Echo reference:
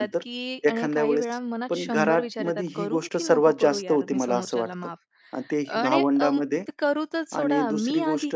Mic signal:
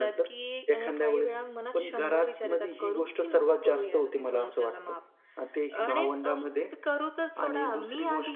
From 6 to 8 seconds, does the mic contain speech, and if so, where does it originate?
echo only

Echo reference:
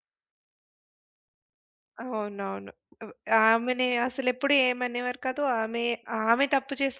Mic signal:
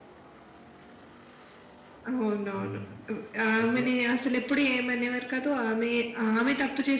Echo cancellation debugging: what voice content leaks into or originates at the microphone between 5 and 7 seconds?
echo only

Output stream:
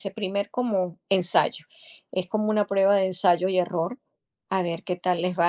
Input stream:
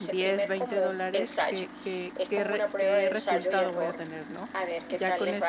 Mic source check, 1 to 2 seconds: both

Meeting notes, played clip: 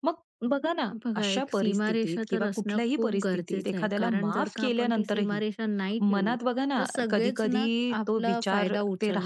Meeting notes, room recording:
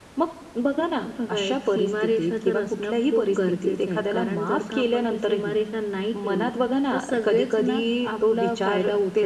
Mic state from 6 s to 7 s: echo only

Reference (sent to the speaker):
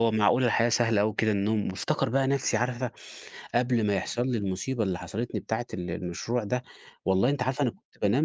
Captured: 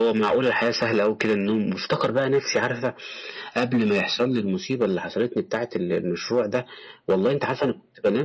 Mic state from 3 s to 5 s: echo only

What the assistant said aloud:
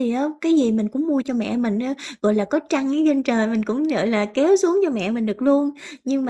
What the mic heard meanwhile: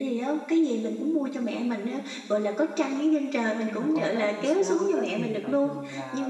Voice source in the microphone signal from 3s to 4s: both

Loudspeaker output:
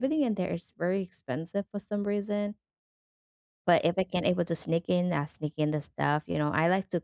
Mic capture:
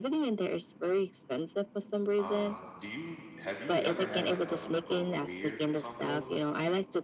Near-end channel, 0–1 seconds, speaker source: echo only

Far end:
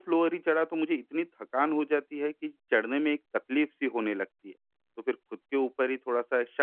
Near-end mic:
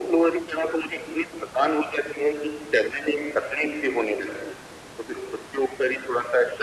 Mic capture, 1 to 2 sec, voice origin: echo only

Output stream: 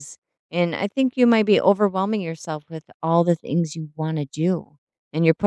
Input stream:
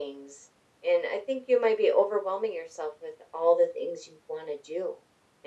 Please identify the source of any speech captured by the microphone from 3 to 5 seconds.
echo only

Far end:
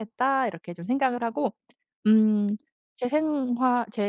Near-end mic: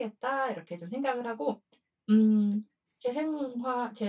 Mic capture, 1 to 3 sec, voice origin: echo only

